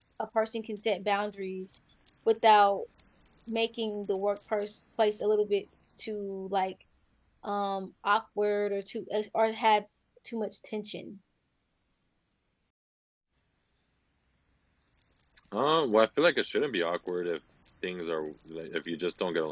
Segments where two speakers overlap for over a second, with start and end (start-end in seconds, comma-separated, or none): none